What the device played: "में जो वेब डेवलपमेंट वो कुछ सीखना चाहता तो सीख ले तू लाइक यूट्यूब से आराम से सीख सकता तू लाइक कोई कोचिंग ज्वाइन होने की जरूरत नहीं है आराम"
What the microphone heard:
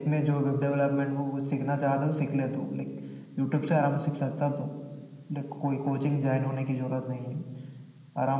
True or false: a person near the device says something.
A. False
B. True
A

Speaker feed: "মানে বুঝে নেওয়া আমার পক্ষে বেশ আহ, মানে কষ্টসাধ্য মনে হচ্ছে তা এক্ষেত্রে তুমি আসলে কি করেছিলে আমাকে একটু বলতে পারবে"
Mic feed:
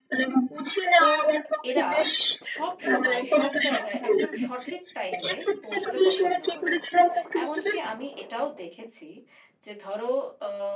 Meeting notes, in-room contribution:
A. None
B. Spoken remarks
B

